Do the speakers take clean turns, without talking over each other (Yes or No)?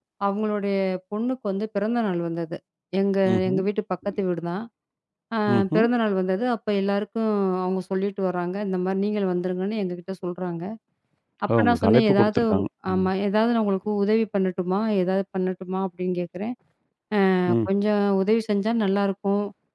No